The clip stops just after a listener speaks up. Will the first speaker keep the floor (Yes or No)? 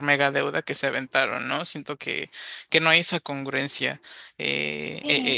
No